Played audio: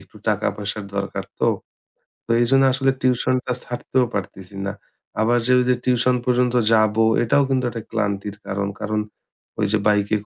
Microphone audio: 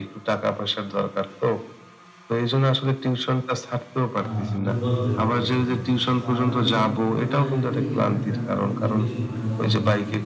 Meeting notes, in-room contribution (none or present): present